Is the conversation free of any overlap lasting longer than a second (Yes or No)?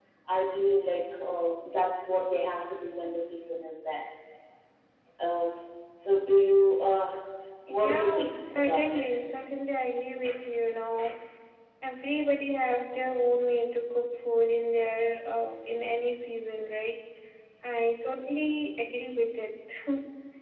No